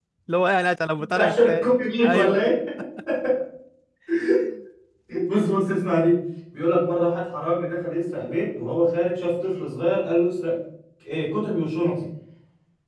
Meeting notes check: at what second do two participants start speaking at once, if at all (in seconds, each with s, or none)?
1.1 s